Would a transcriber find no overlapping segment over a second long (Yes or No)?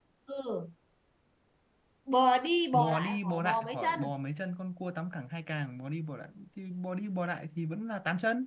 No